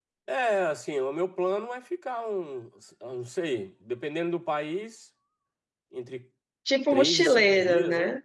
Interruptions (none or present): present